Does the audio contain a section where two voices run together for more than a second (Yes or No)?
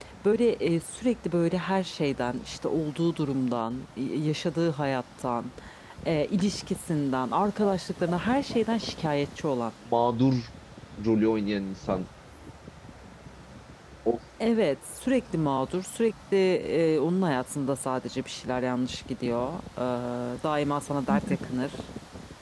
No